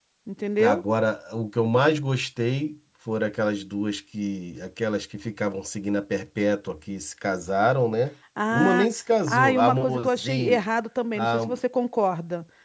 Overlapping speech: Yes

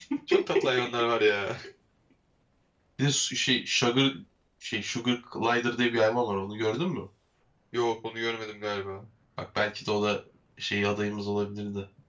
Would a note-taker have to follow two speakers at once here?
No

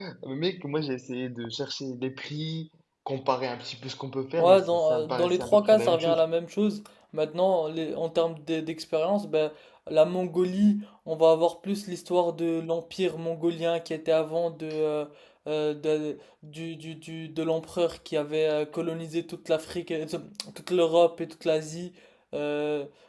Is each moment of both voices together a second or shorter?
No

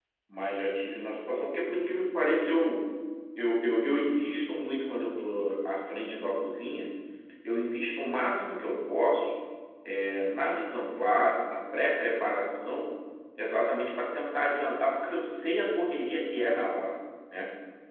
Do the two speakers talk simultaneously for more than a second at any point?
No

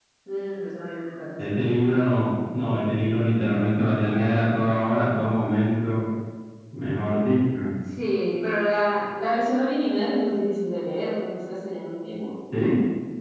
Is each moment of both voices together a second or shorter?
Yes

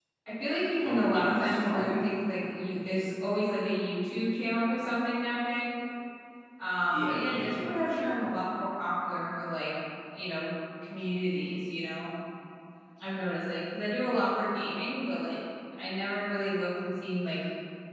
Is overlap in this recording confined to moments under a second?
No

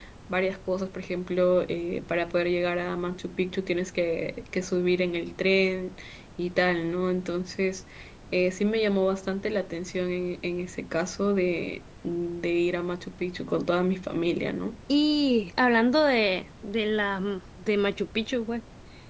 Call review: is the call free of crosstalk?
Yes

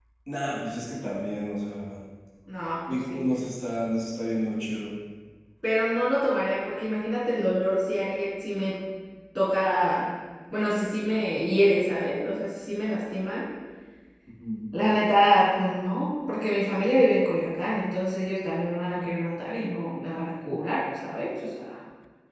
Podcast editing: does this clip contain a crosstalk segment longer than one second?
No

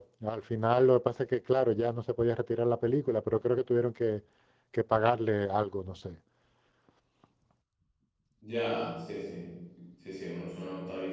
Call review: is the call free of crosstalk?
Yes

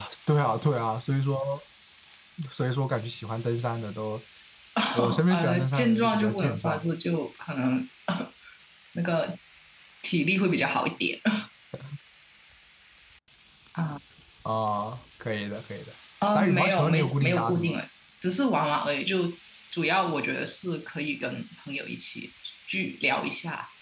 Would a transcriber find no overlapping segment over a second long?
No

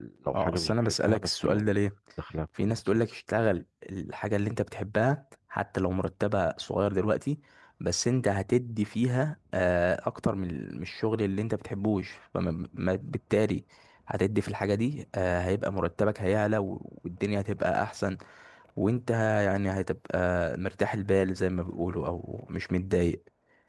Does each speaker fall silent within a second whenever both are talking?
No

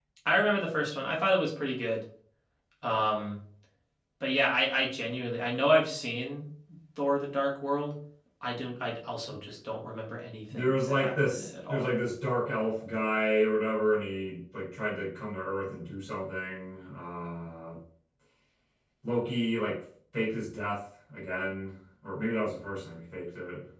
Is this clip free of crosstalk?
No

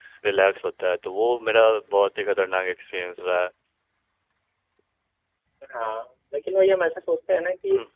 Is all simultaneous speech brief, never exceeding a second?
Yes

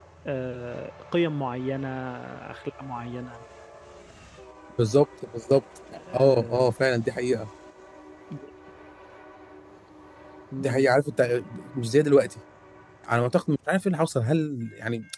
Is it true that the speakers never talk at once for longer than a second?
Yes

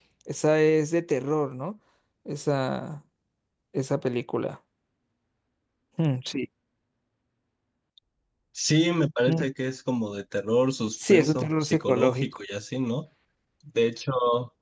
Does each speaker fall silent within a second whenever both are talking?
No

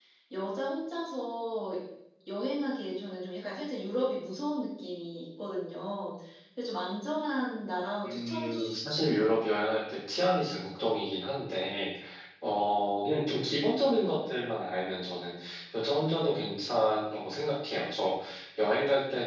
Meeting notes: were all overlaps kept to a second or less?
No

